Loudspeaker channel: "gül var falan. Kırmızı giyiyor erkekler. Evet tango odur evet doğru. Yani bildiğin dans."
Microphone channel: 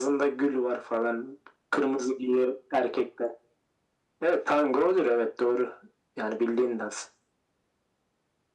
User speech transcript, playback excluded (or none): none